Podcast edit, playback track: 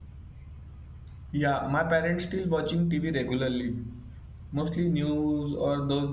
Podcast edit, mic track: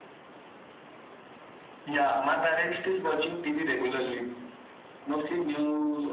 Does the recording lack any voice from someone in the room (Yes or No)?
Yes